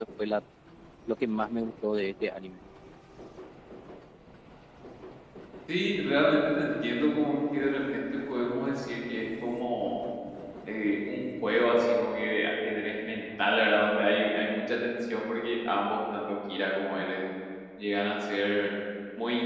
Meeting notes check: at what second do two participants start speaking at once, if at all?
none

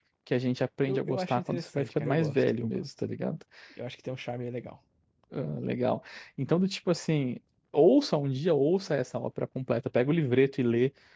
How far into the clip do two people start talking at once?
1 s

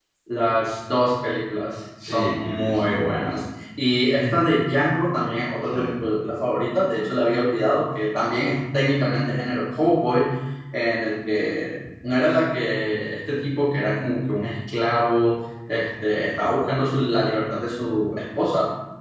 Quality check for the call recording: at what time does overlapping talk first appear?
2 s

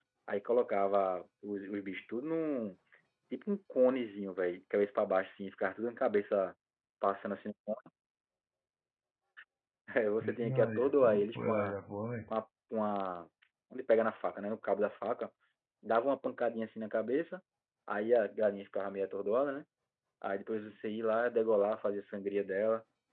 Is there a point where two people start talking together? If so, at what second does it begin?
10 s

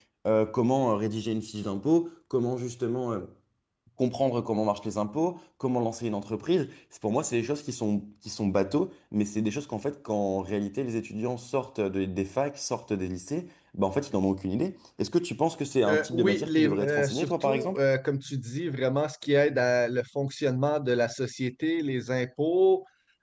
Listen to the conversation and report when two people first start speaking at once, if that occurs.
16 s

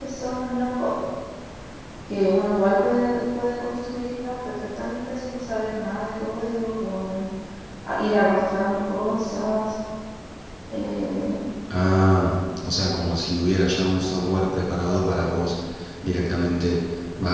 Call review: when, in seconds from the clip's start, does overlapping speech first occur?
none

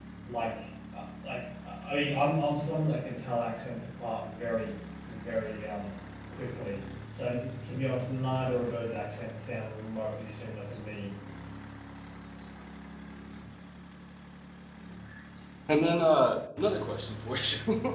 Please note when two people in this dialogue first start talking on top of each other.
none

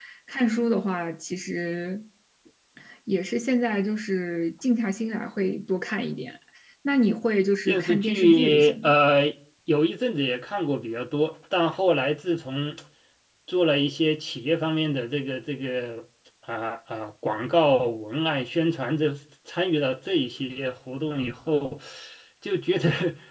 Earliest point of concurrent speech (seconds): 8 s

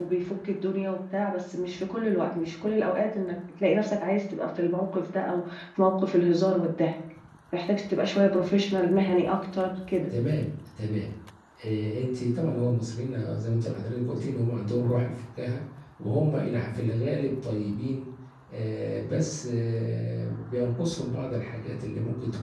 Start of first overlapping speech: none

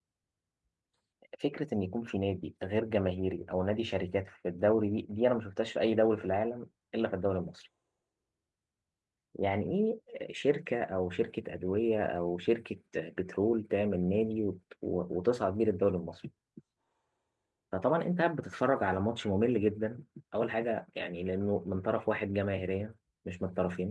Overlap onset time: none

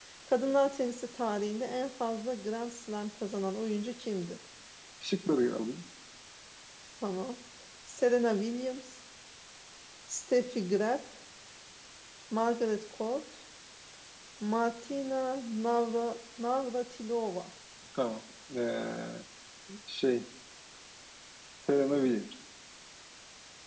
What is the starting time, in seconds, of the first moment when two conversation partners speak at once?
none

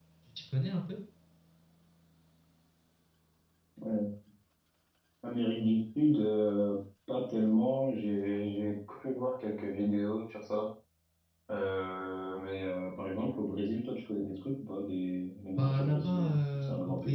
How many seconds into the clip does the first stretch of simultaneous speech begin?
16 s

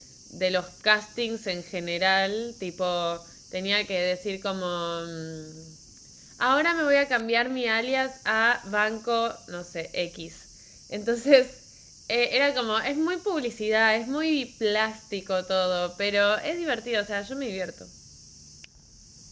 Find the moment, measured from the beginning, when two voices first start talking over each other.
none

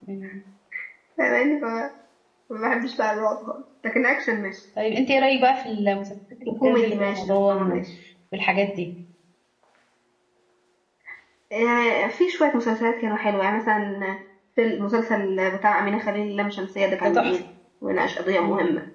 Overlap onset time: 6 s

